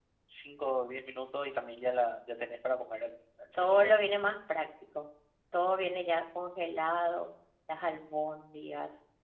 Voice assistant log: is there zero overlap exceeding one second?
Yes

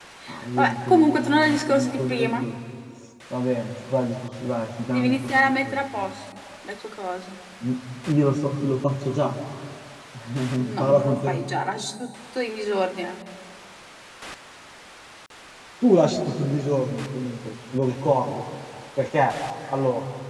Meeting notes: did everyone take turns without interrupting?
No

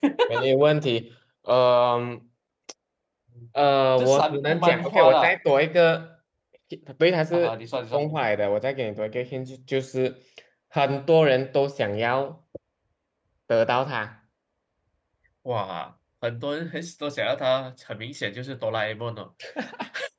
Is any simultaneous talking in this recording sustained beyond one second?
Yes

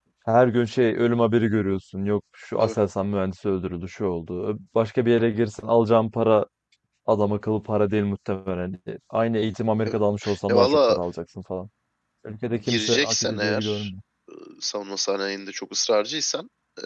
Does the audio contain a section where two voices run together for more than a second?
Yes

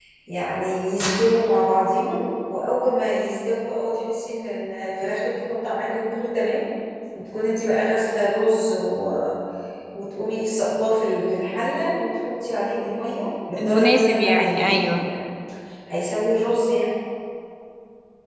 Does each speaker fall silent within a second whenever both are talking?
No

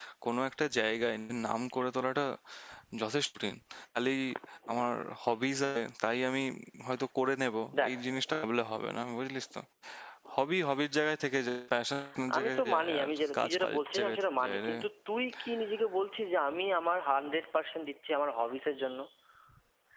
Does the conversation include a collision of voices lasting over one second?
Yes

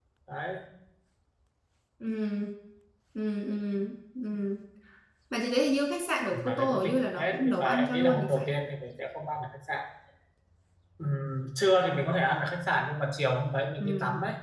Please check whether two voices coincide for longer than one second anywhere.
Yes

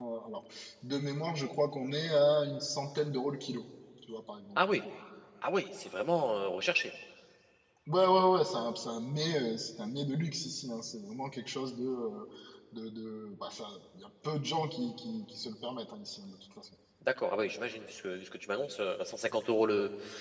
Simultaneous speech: No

